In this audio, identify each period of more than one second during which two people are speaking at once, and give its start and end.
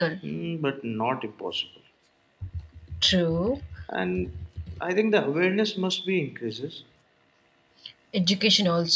none

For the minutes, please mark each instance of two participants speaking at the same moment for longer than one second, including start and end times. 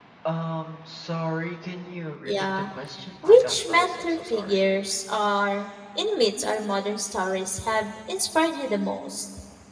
3.2-4.6

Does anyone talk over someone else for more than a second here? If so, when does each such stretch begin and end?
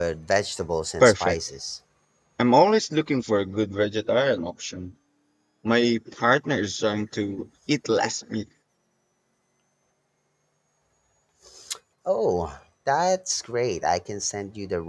none

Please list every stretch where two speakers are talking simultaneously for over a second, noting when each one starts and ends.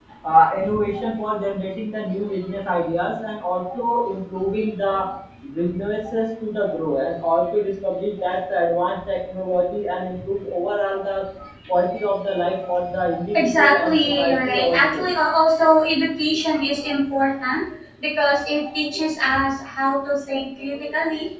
13.4-15.1

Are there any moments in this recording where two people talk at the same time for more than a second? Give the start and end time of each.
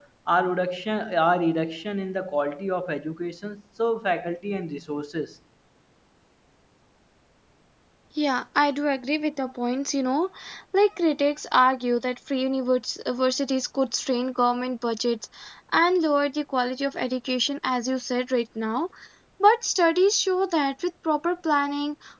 none

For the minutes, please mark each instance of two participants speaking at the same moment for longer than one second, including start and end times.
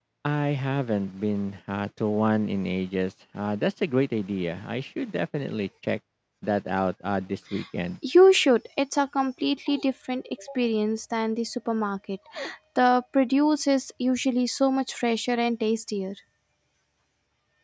none

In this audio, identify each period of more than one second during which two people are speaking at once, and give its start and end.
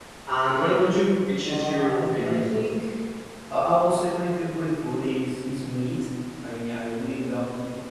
1.4-2.7

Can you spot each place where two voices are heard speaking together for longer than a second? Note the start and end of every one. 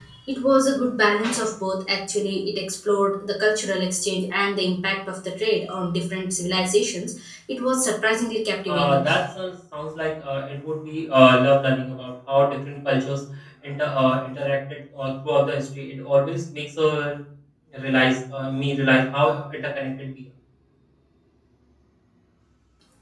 none

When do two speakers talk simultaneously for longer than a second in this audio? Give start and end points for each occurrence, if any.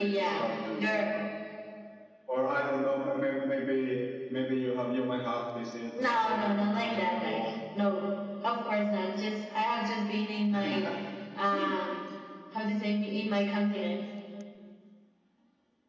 6.0-7.5

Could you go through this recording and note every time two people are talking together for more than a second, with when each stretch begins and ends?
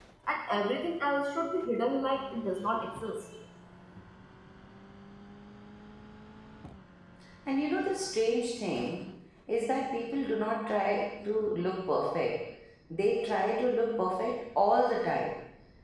none

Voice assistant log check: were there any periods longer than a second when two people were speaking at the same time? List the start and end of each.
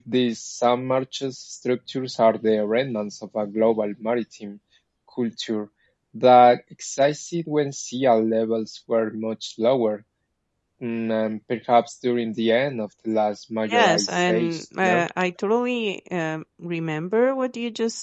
13.7-15.0

